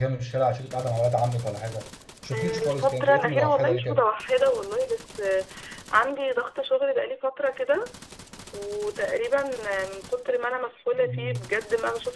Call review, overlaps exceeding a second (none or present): present